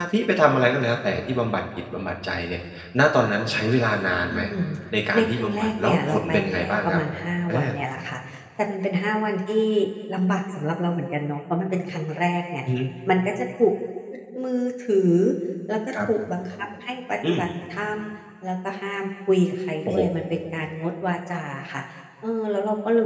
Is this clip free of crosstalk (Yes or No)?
No